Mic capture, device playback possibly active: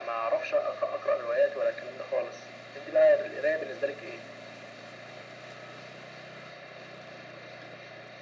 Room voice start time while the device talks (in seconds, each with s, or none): none